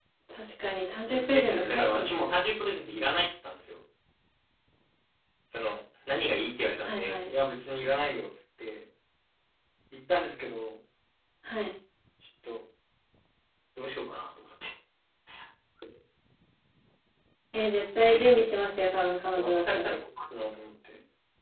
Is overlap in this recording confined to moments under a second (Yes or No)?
No